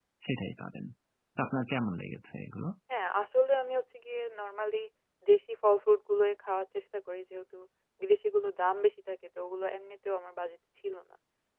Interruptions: none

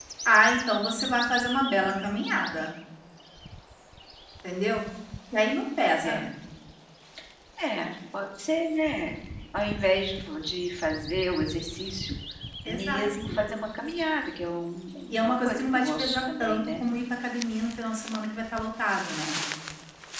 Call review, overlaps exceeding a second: present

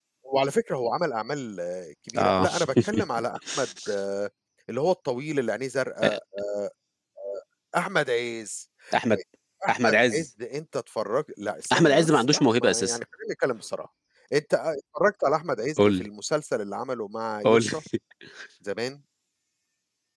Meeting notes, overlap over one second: present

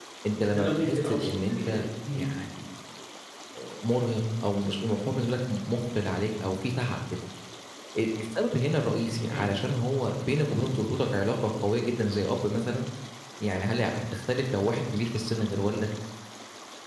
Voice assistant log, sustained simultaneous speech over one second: present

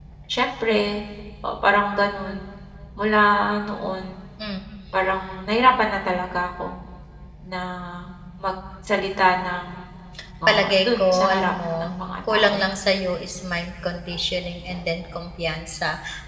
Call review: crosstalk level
present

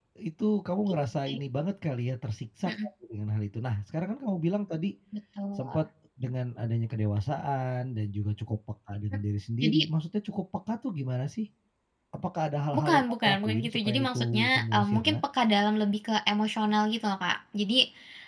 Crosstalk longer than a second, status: present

